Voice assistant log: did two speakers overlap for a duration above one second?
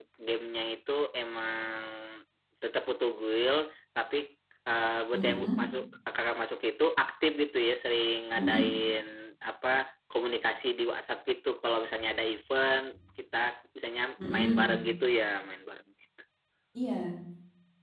No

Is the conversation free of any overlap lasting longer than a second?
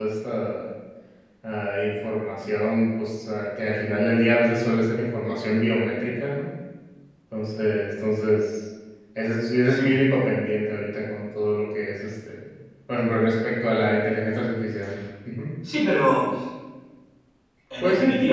Yes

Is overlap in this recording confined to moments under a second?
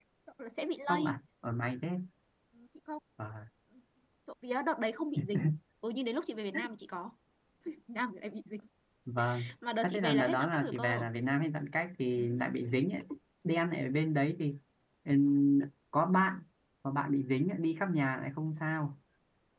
No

